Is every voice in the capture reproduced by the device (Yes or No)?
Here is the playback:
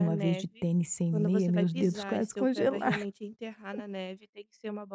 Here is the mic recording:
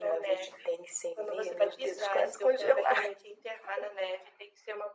Yes